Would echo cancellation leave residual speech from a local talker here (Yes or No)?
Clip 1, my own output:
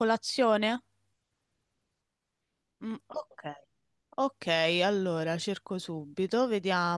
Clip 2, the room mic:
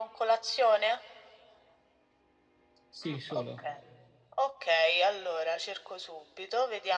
Yes